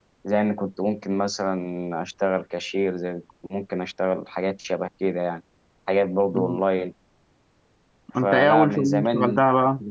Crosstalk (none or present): present